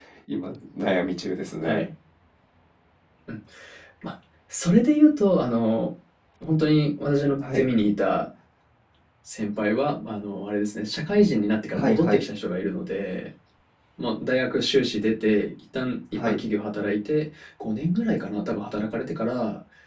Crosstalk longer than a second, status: none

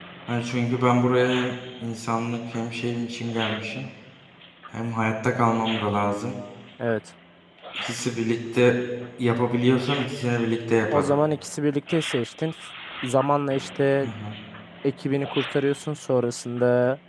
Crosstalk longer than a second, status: none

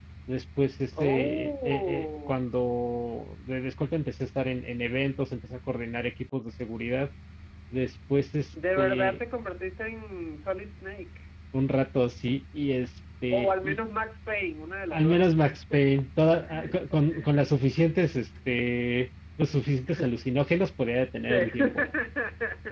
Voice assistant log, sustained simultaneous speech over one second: present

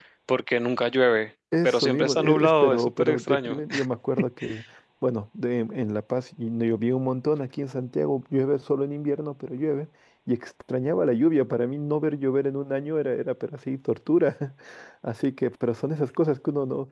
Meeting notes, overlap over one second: present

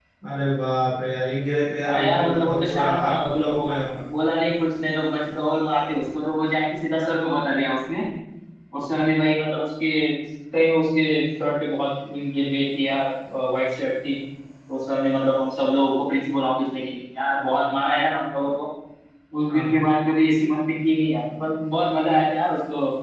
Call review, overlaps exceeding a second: present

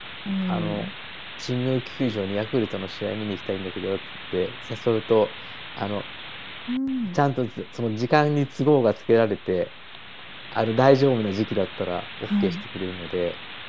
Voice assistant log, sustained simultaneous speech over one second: none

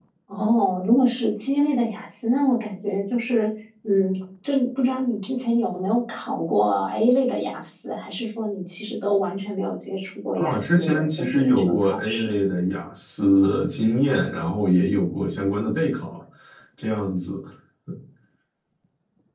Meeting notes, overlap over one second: present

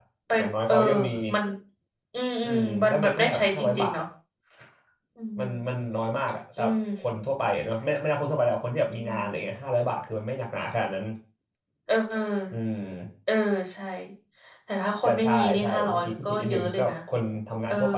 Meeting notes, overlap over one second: present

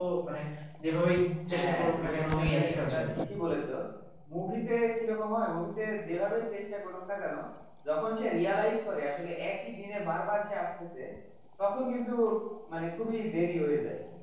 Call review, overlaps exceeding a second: present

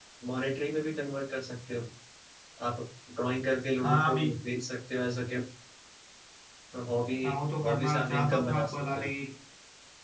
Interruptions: present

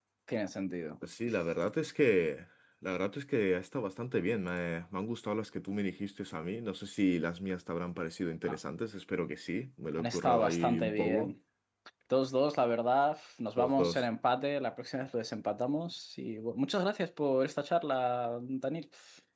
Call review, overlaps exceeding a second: present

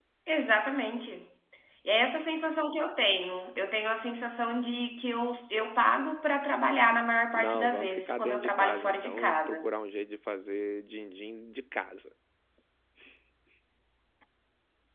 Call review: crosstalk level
present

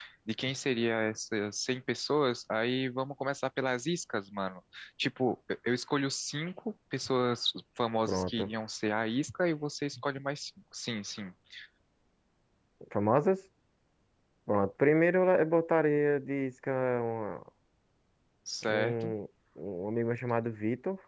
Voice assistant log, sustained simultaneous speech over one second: none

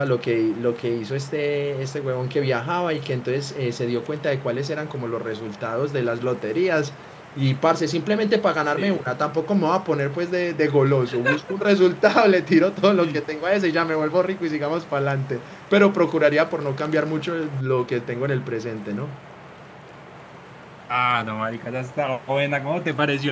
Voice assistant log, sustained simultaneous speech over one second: none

